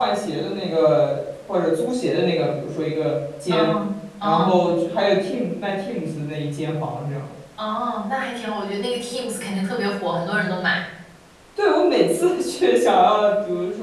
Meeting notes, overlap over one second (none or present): none